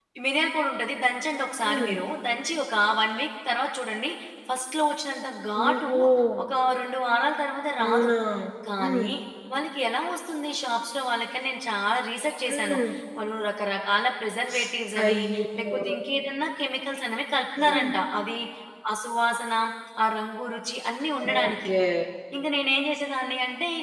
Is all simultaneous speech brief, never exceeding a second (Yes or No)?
Yes